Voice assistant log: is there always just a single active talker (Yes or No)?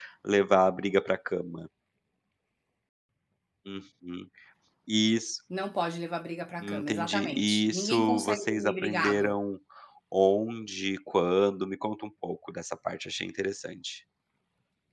No